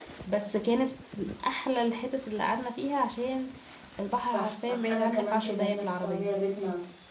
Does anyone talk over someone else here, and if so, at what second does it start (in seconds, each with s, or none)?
4.3 s